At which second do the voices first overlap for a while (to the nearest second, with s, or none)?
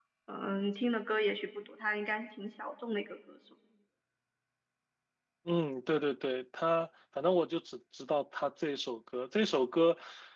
none